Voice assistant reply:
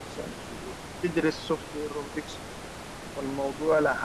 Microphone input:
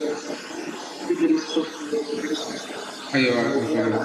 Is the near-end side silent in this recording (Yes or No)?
No